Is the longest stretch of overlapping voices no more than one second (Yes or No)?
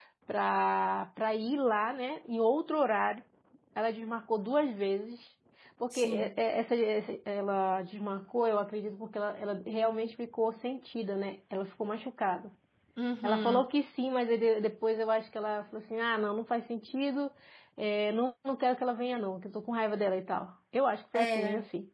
Yes